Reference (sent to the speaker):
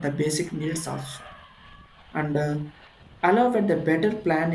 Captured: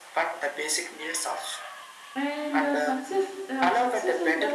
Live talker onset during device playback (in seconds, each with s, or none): 2.1 s